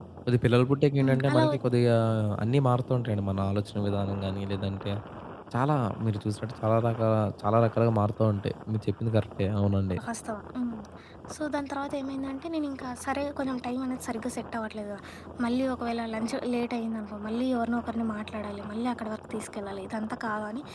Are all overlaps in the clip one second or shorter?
Yes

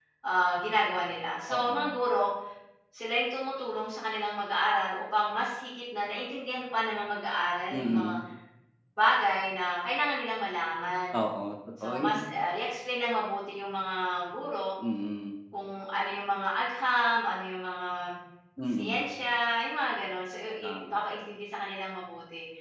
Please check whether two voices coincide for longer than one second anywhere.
No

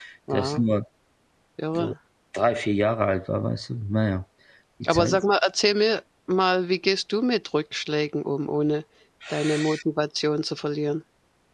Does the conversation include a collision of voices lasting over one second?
No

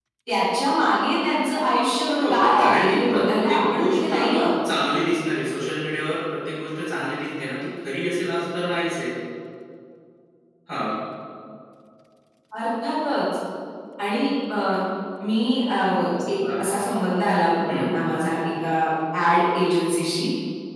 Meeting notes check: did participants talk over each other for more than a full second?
Yes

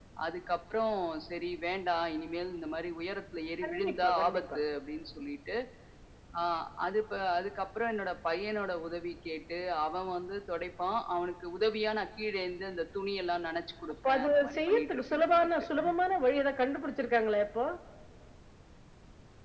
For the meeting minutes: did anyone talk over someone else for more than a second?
Yes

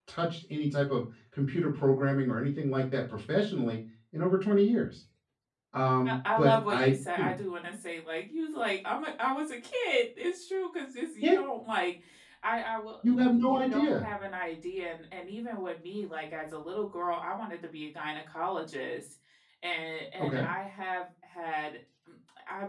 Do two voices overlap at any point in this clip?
Yes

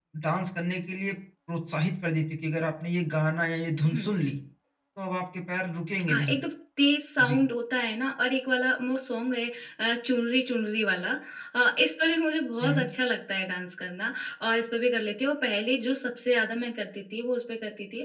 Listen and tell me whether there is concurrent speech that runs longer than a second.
No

